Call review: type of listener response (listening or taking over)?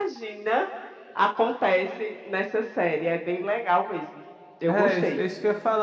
taking over